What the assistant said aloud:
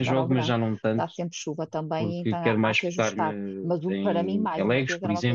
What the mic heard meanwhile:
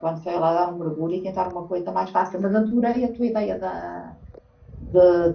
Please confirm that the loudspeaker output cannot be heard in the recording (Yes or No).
Yes